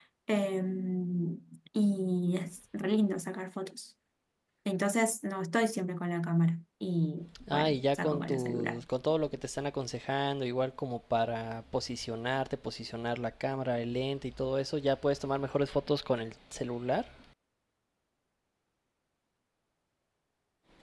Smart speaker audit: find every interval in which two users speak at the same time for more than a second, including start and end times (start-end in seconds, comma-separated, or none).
7.5-8.8